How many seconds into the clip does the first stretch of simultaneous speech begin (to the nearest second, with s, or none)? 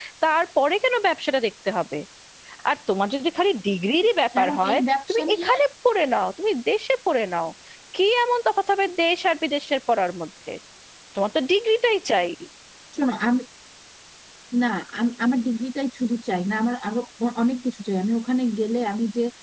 4 s